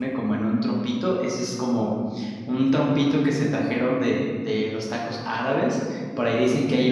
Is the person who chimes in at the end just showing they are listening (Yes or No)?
Yes